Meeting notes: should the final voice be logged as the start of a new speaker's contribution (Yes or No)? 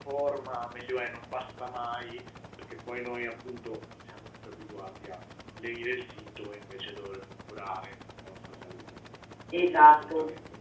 Yes